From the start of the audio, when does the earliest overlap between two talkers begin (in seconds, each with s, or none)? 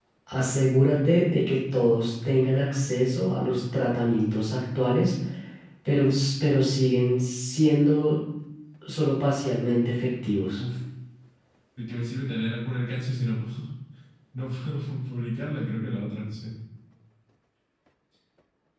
none